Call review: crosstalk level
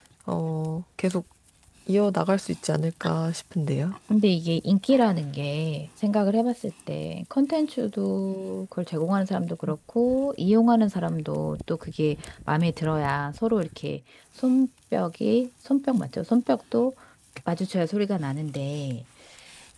none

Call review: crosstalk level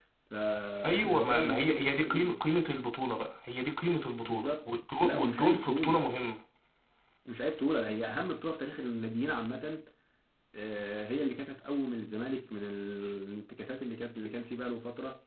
present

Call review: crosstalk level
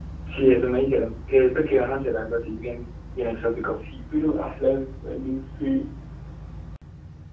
none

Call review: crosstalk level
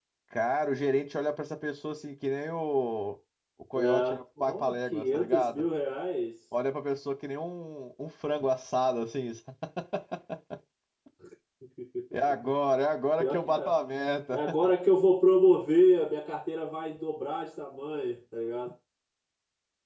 present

